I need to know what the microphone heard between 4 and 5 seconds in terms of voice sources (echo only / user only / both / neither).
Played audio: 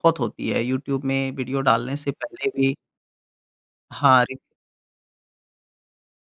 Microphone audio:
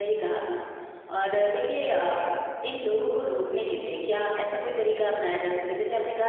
user only